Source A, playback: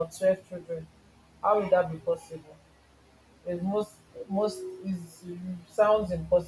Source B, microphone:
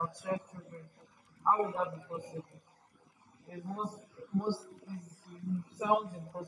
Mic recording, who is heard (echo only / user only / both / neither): echo only